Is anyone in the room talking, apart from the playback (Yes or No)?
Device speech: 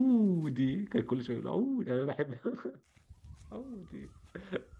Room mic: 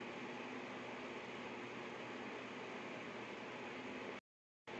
No